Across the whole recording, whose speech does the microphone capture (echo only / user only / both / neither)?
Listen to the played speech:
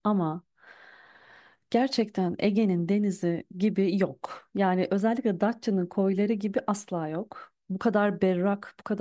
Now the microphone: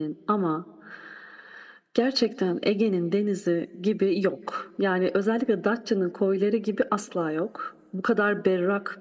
echo only